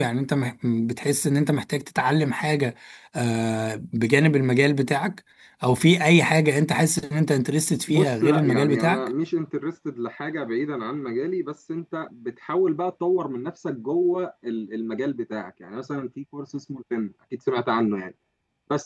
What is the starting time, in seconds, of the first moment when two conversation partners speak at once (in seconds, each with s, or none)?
7.9 s